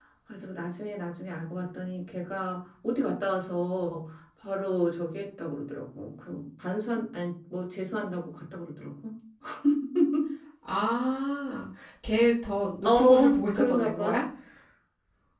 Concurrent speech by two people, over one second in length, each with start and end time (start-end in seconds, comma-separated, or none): 12.8-14.2